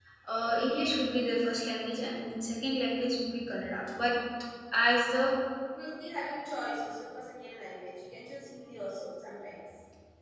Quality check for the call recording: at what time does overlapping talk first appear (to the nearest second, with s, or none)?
none